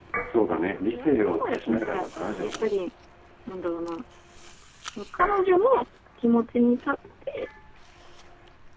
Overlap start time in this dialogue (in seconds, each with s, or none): 0.9 s